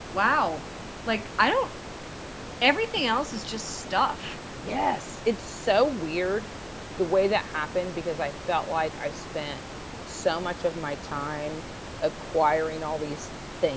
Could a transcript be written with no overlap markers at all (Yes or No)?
Yes